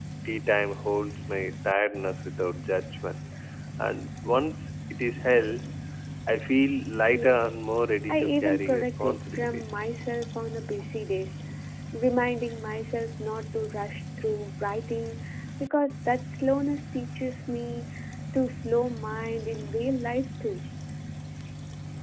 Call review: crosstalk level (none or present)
present